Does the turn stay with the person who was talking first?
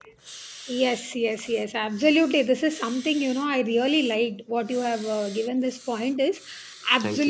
Yes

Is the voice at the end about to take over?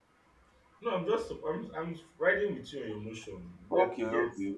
Yes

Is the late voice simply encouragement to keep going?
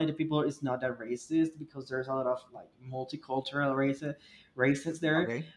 Yes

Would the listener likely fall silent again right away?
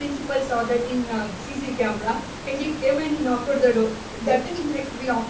Yes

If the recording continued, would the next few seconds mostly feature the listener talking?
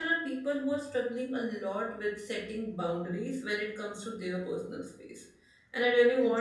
No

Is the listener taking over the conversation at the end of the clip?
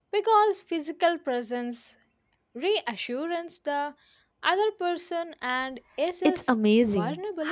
Yes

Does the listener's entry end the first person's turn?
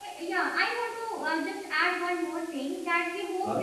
No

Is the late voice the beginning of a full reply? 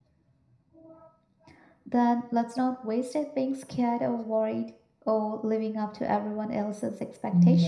Yes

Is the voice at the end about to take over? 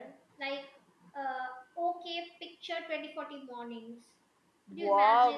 Yes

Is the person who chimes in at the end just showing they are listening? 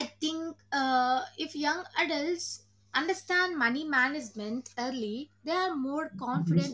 Yes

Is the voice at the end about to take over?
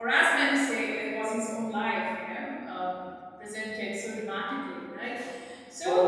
Yes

